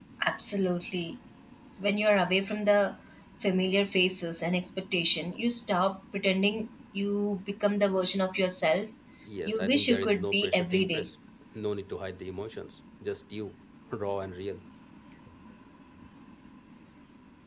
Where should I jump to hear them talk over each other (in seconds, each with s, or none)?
9.5 s